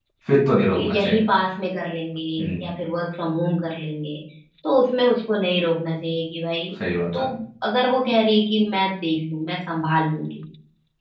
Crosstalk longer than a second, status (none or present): none